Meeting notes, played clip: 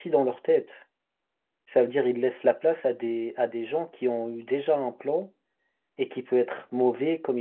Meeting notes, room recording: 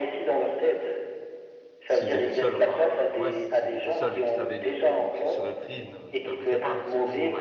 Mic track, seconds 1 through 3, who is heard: both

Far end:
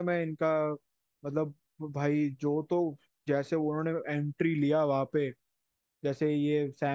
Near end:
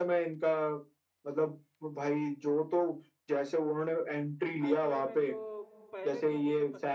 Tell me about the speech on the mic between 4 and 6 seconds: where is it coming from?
both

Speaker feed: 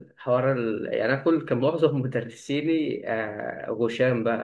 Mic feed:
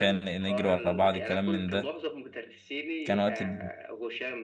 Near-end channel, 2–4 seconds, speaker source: both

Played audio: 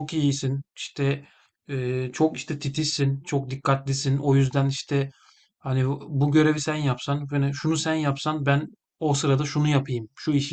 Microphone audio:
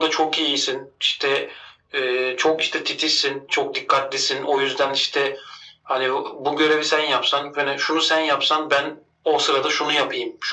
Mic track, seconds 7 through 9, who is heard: echo only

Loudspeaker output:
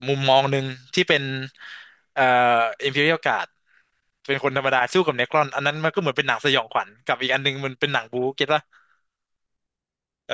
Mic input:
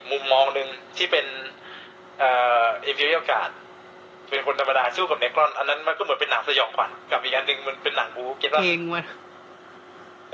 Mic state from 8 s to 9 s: both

